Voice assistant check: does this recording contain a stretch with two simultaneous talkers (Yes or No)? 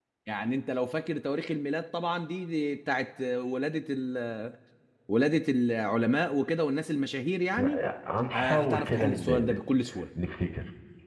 Yes